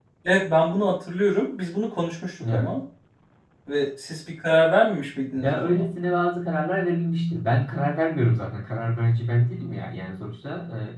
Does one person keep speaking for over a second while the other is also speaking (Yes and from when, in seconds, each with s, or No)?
No